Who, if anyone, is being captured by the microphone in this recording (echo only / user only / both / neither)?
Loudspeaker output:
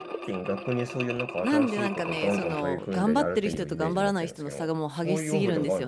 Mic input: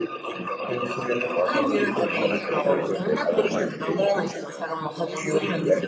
both